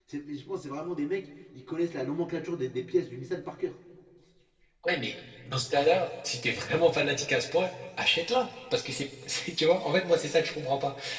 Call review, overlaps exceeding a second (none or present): none